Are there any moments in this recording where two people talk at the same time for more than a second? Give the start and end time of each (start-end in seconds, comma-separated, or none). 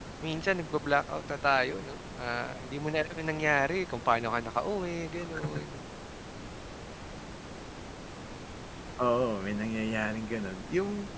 none